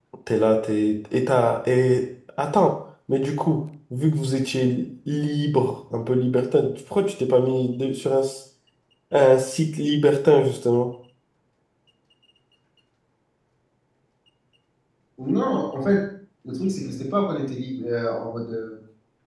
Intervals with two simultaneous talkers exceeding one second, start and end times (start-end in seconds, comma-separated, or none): none